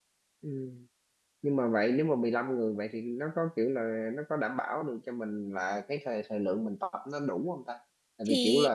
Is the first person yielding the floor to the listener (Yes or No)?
No